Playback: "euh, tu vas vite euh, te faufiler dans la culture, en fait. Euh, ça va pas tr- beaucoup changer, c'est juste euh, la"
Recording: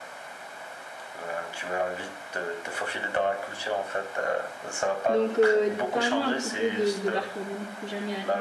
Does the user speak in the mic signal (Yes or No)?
Yes